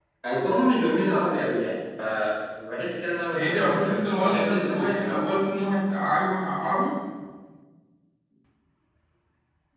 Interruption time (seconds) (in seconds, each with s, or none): 3.4 s